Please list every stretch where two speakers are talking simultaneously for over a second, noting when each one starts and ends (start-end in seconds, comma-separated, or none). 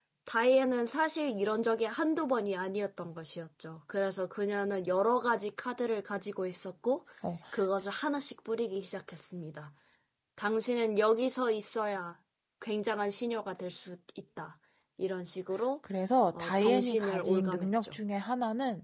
16.3-18.0